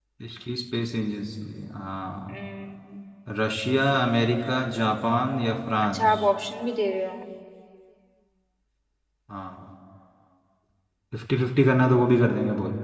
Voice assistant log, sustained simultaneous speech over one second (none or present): none